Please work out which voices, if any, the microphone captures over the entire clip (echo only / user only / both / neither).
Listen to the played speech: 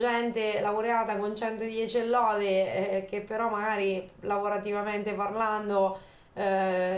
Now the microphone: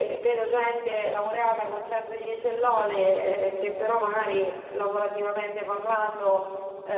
echo only